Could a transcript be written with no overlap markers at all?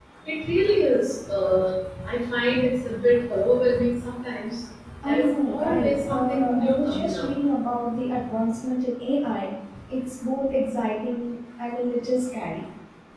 No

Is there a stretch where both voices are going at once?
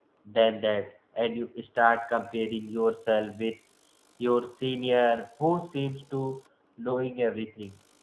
No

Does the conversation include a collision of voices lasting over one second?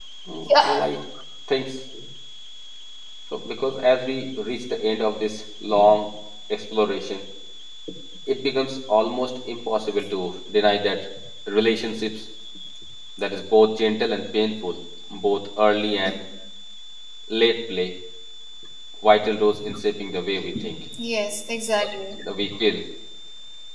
No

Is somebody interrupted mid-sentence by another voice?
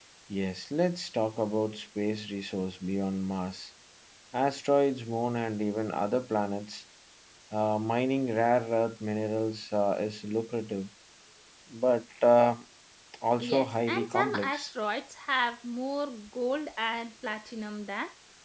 Yes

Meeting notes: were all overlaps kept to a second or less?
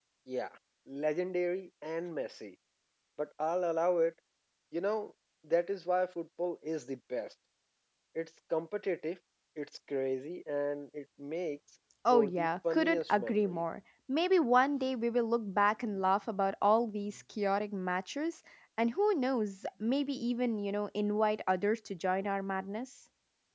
No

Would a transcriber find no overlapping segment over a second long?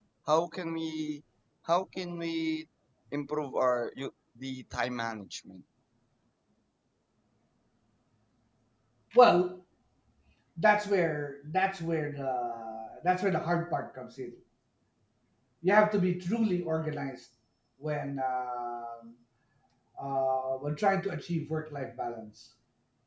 Yes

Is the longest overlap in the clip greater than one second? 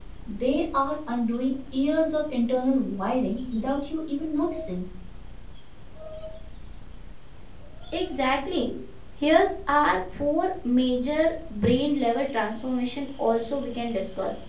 No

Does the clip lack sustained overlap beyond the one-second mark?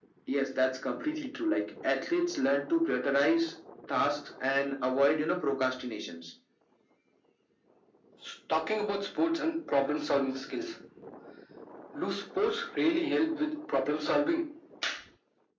Yes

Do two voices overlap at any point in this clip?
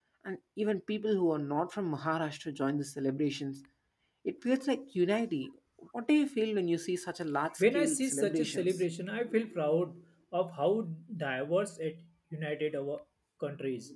Yes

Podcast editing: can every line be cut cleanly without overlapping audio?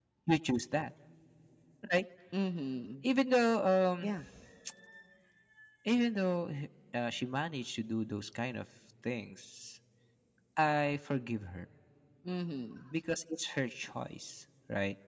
Yes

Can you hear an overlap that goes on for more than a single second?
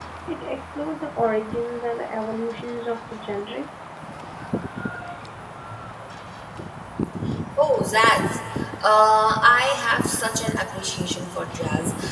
No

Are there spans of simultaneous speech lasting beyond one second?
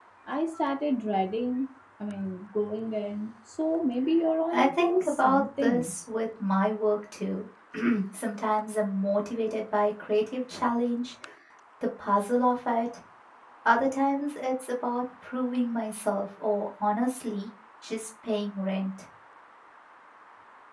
Yes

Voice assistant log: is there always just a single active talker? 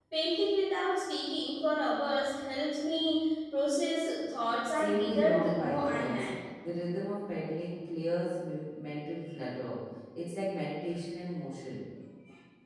No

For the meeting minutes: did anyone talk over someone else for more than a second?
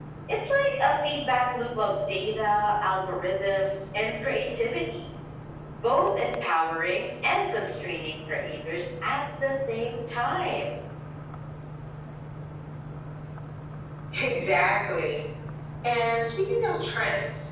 No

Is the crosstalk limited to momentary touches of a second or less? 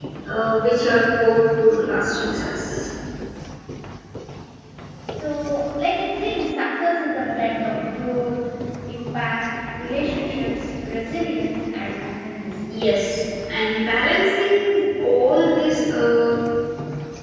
Yes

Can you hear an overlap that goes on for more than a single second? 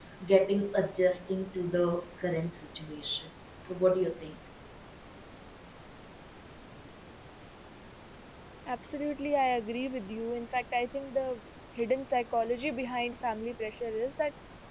No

